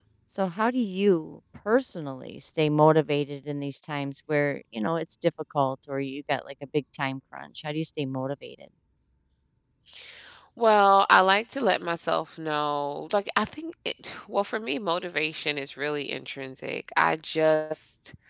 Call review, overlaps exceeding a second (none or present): none